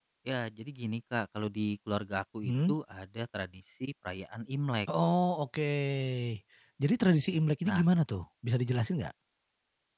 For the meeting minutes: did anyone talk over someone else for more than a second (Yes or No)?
No